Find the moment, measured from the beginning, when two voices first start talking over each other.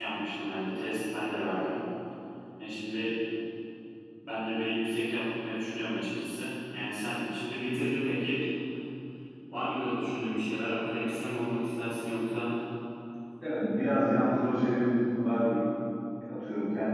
none

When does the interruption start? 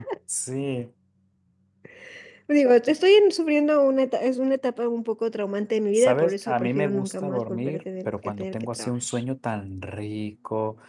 6.0 s

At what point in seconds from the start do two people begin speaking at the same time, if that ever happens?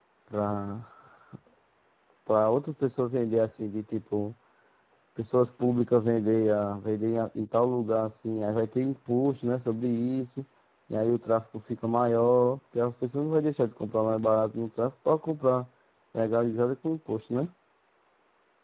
none

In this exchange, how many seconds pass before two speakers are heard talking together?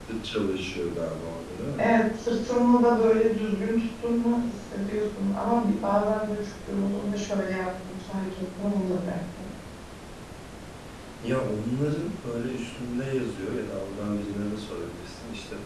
none

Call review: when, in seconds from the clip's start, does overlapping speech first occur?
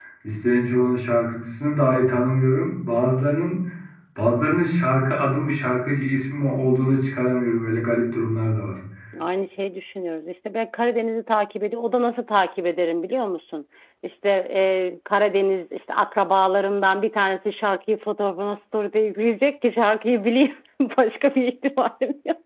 none

